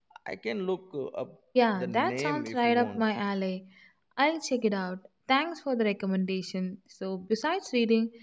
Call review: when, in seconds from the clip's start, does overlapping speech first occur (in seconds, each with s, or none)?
1.6 s